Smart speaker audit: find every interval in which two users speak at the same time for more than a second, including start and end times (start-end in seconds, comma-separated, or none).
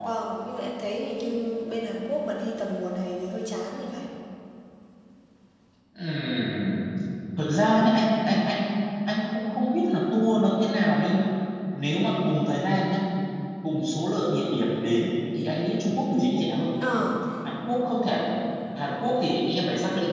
none